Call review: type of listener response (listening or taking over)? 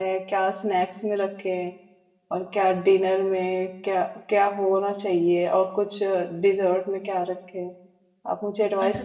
taking over